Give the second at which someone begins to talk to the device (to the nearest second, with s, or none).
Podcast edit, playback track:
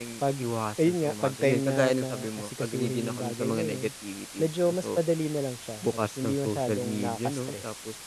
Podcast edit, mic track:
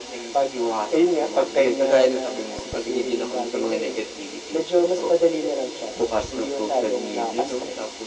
none